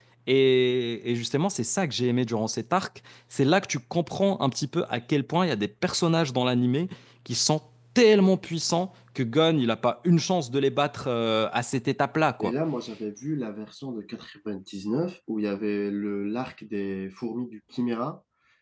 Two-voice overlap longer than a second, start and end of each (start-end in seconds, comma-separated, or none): none